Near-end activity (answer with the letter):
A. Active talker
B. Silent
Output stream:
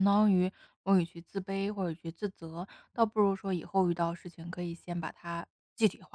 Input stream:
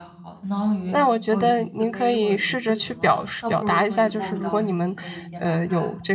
A